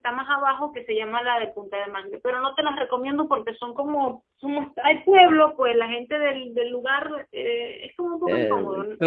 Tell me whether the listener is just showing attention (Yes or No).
No